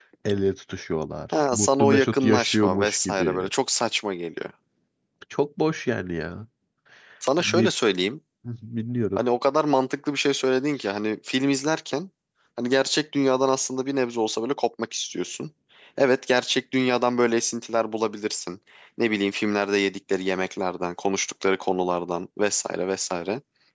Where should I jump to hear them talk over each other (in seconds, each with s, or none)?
1.5 s